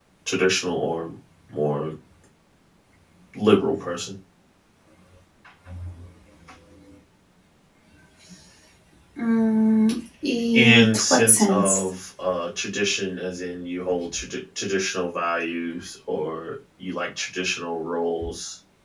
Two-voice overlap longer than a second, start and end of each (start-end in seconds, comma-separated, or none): 10.5-11.9